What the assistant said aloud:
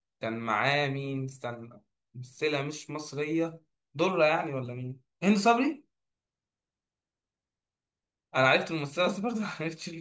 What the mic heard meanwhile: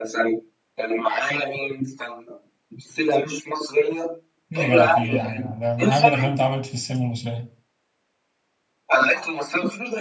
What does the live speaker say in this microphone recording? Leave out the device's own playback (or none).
ايه يا جدع في ايه يا جدع ده من اهم الافلام اللي اتعملت في السينما المصريه